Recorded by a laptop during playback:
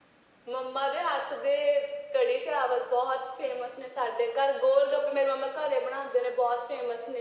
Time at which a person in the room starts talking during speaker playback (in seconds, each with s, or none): none